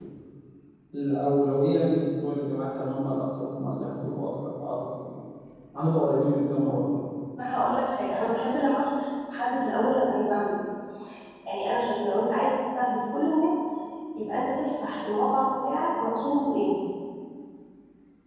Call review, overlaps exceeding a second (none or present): none